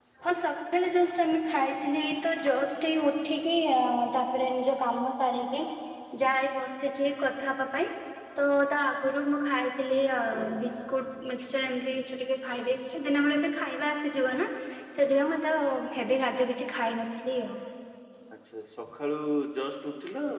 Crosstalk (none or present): none